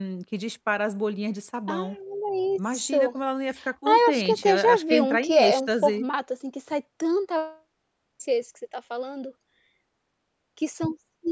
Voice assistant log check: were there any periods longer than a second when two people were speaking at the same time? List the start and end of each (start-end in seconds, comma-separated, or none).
3.8-6.1